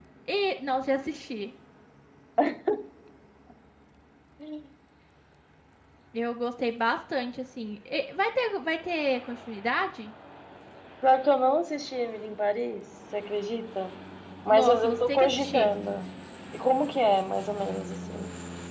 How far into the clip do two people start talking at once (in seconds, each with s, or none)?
14.5 s